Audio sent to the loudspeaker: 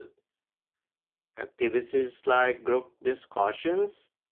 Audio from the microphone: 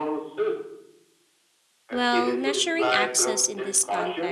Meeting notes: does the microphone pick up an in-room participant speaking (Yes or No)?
Yes